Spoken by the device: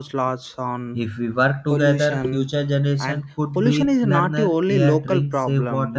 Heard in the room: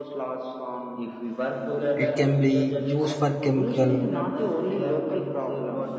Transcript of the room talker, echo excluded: it can be used for chemical

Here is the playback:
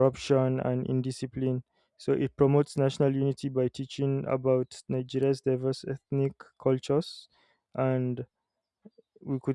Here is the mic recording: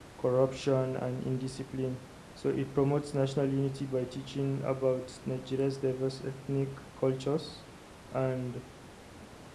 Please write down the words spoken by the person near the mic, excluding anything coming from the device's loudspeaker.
none

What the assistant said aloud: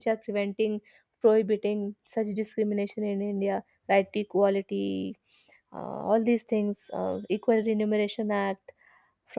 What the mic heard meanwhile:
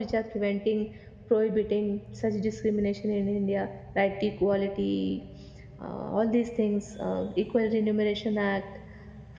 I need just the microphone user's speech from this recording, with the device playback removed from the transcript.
none

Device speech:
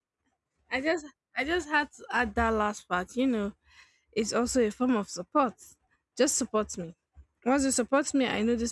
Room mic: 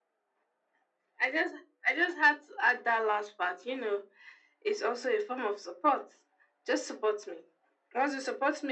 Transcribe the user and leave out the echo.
none

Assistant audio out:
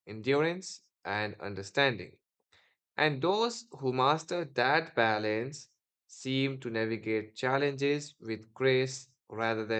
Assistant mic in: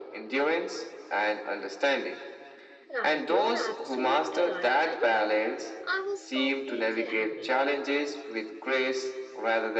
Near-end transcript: Right, you are absolutely right. And you know, I was completely agree.

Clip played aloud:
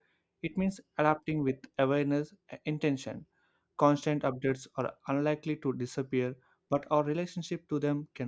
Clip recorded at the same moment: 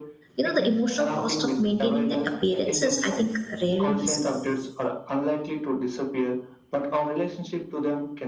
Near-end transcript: you know, the emotional cost of maintaining that appearance is, I think, rarely visible.

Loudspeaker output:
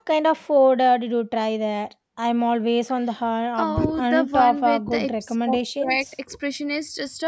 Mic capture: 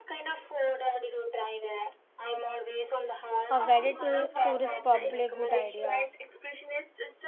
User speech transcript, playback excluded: A guided to- tour is probably a good idea.

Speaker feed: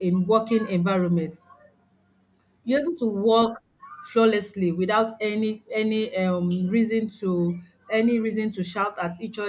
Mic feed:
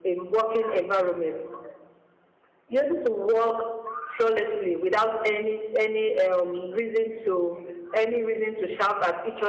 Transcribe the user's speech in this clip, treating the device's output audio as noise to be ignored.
none

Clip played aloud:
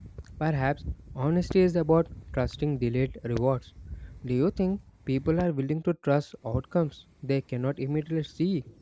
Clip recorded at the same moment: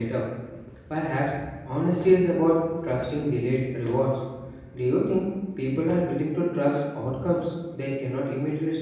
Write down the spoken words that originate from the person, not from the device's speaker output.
none

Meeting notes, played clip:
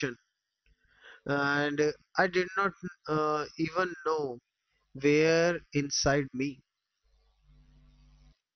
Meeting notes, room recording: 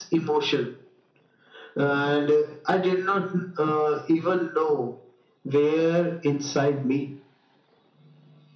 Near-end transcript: none

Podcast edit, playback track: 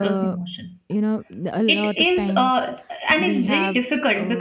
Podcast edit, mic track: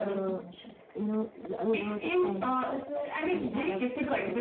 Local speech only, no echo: also

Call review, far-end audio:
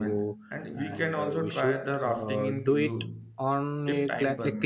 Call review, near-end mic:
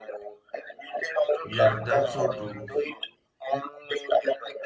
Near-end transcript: Yes, that's so true.

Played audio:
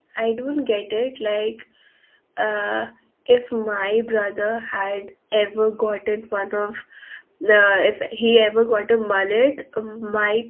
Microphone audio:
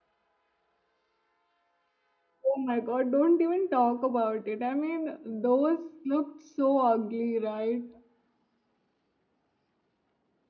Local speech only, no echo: oh my God, don't even talk about it. I mean, those looked so ugly, right?

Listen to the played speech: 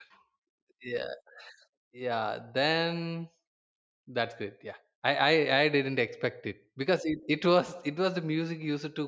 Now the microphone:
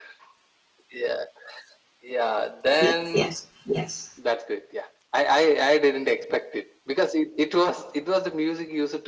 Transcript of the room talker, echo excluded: yes, yes, yes.

